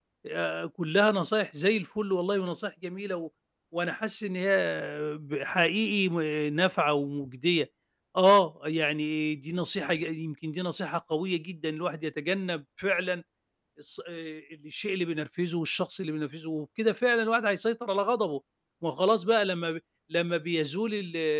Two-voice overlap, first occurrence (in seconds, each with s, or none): none